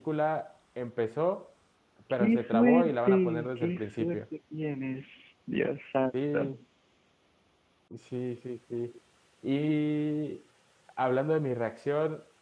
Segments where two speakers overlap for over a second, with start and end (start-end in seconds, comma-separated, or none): 2.2-4.2